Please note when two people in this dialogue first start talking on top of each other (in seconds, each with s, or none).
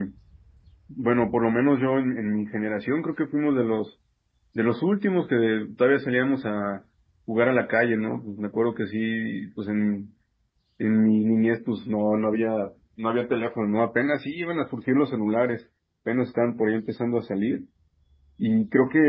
none